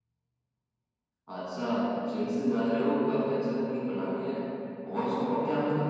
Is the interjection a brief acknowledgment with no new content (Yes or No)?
Yes